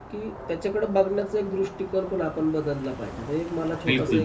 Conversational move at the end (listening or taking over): listening